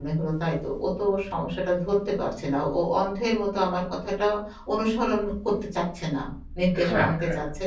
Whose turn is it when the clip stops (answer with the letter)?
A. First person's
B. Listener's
B